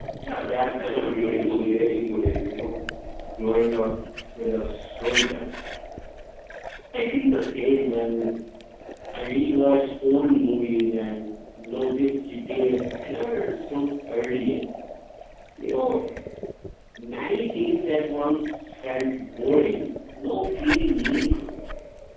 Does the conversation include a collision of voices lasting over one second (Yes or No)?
Yes